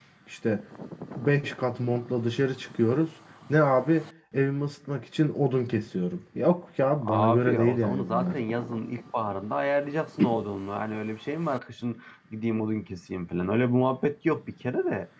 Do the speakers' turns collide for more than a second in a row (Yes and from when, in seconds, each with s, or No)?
Yes, from 7.0 s